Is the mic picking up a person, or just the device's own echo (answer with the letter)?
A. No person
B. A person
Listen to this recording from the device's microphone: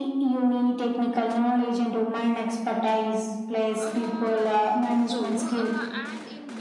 B